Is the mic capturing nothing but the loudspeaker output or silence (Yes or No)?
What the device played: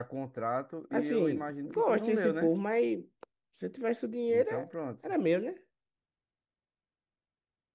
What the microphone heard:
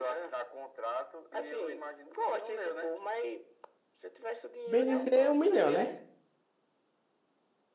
No